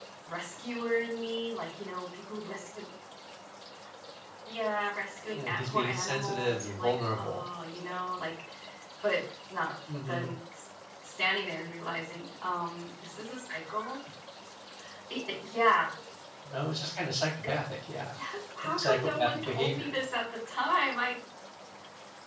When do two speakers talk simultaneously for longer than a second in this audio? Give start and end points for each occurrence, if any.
5.3-7.4, 18.8-20.0

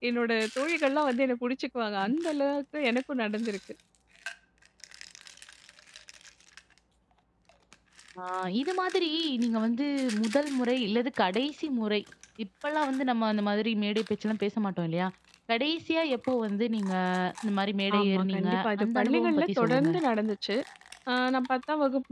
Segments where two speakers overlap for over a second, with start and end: 18.0-19.9

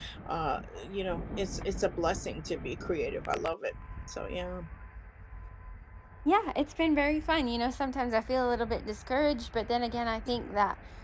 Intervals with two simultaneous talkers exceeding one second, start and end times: none

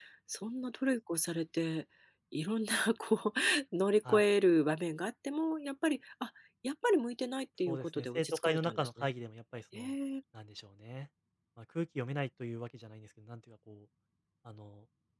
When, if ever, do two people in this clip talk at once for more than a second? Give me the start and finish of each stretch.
7.7-9.1

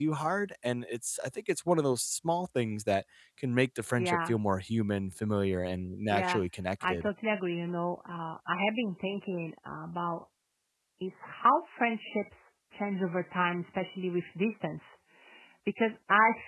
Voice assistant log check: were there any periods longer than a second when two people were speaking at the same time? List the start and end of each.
none

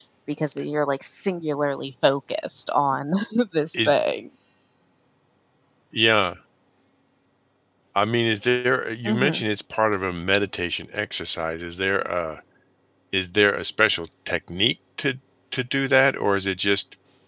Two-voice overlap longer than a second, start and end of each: none

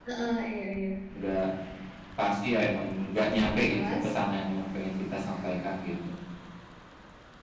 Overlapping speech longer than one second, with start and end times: none

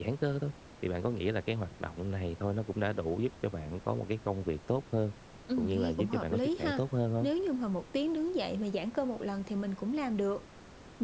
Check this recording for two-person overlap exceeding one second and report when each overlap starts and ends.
5.6-6.8

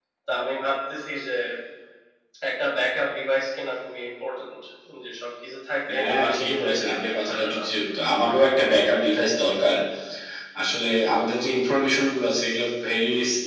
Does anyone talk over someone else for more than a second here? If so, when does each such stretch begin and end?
6.0-7.6

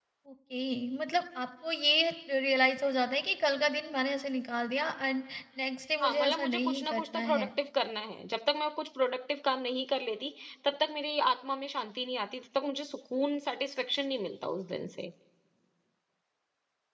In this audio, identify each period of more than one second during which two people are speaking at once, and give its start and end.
6.0-7.5

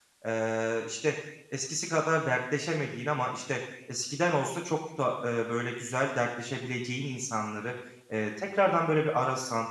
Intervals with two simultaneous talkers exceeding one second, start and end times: none

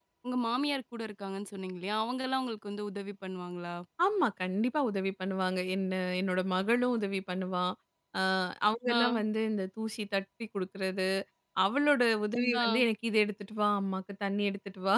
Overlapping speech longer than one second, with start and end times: none

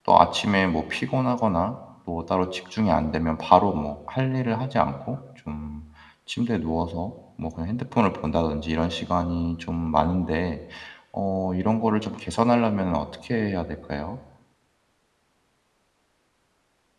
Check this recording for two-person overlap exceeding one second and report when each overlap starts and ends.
none

